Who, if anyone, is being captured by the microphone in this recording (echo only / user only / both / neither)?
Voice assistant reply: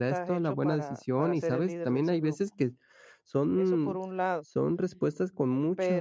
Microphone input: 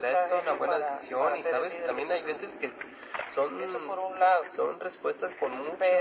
echo only